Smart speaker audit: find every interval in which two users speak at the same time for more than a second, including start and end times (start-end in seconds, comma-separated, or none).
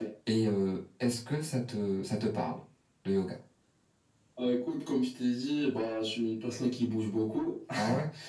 none